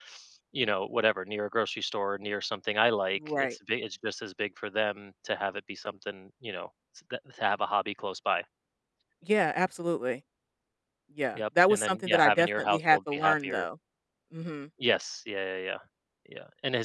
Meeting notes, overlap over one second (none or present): present